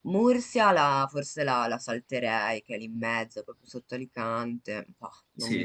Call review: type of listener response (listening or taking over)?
taking over